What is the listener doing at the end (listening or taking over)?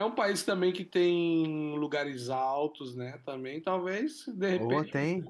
listening